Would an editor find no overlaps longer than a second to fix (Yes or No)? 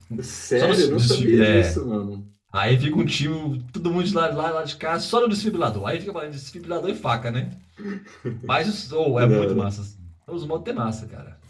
No